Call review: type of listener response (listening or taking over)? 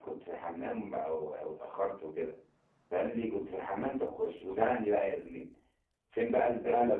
listening